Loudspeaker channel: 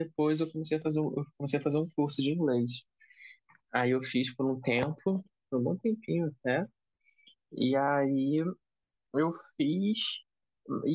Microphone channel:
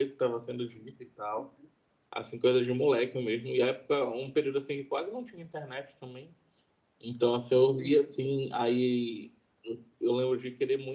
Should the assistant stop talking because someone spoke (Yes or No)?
Yes